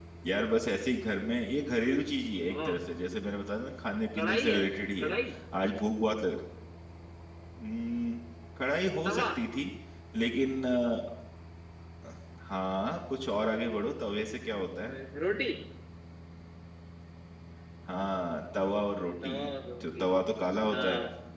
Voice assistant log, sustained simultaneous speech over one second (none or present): none